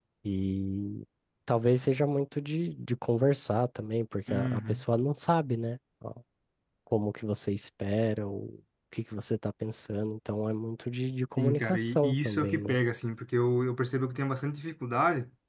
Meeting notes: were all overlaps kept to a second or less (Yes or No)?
No